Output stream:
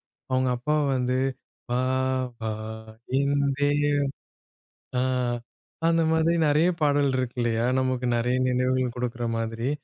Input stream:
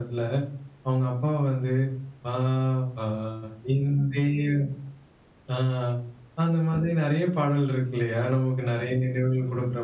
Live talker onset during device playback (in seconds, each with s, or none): none